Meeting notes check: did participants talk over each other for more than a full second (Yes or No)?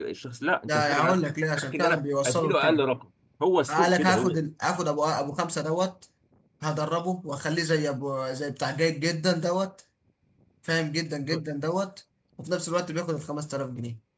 Yes